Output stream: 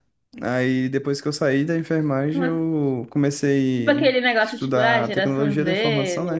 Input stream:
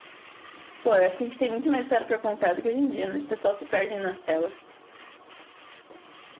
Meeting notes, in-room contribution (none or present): present